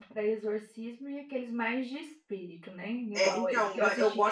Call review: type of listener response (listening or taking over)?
taking over